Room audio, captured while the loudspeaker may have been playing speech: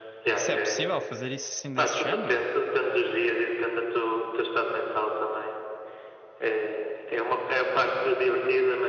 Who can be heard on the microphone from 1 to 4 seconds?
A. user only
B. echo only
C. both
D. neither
C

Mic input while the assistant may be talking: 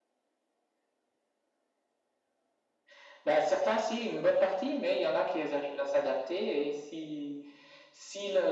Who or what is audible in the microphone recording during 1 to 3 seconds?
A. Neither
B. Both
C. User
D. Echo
A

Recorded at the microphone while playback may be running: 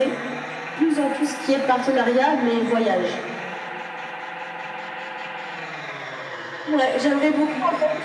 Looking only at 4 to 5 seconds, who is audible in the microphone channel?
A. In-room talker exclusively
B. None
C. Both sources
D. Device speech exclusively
B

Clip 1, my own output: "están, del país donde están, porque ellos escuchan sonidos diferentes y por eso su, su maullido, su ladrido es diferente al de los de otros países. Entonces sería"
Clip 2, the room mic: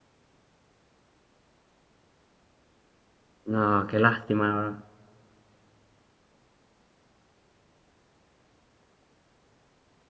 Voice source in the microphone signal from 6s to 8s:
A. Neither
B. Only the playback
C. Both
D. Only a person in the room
A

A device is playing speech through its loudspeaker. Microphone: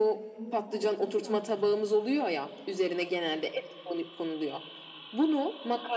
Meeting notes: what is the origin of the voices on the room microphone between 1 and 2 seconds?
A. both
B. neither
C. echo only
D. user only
A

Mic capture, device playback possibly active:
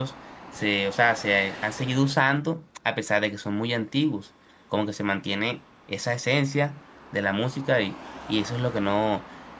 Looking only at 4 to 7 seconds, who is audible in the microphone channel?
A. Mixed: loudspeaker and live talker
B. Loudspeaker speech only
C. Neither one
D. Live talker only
D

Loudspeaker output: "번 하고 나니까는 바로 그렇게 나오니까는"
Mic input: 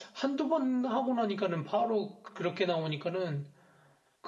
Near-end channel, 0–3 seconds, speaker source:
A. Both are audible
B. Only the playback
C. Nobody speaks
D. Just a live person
B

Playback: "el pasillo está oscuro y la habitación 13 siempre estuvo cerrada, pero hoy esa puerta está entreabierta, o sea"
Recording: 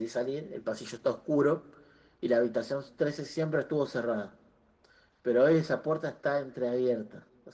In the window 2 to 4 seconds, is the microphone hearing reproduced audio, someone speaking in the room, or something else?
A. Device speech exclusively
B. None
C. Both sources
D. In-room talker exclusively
A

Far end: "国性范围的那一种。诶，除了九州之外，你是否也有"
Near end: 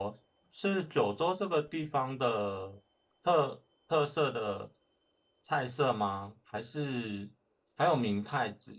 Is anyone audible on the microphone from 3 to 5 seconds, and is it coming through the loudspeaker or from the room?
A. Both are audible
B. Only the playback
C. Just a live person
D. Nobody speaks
C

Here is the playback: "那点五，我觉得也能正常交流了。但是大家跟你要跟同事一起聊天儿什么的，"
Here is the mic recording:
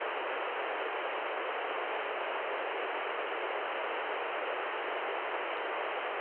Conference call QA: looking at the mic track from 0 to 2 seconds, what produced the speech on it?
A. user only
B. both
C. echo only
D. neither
D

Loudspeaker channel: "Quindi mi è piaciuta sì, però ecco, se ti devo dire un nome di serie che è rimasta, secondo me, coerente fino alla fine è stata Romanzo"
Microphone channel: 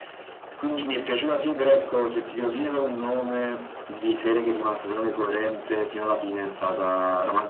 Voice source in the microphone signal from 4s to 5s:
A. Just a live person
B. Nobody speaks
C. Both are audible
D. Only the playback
D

